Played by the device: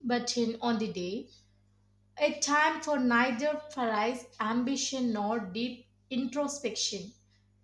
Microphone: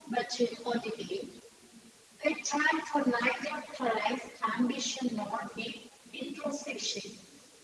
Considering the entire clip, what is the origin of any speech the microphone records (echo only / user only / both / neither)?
echo only